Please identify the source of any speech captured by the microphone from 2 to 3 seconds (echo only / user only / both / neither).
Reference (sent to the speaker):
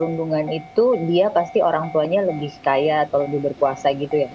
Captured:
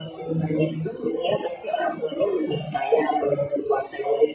echo only